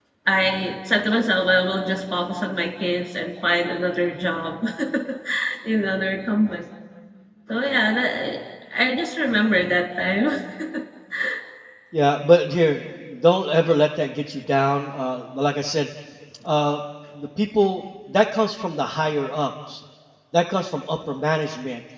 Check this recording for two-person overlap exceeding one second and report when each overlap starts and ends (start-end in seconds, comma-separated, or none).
none